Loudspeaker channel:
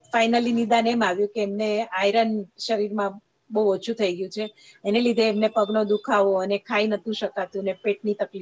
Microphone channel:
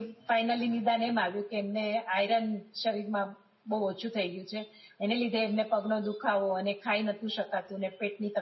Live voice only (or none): none